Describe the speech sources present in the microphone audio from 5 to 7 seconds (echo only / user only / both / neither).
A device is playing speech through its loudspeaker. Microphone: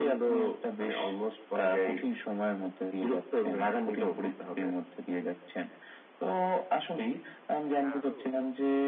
echo only